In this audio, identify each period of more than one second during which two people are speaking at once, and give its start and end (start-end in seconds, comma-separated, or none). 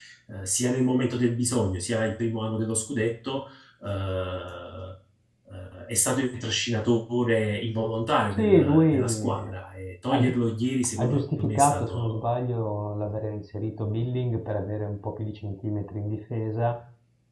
8.4-9.6, 11.0-12.3